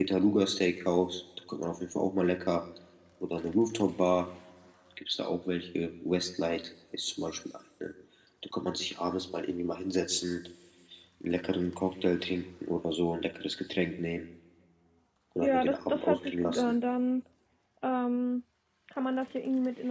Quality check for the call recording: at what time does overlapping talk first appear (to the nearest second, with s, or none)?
15 s